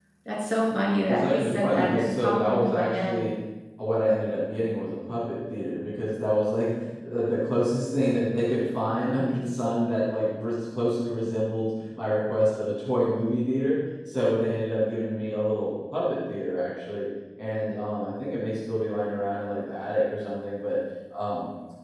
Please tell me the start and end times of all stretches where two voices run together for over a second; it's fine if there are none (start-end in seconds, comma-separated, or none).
1.1-3.3